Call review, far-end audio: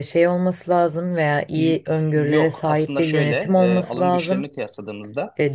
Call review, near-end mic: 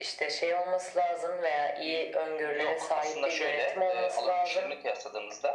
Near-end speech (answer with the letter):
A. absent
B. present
A